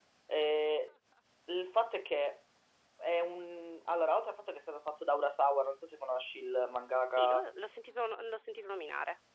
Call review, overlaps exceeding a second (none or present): none